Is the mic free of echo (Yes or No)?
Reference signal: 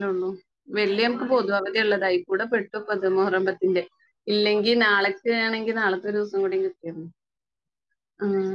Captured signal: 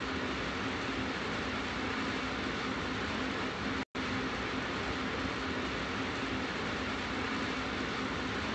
Yes